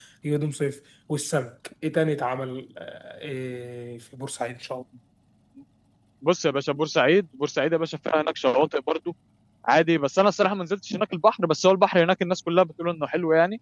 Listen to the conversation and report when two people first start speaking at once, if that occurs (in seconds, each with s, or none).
none